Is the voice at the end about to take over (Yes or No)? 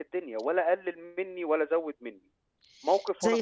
Yes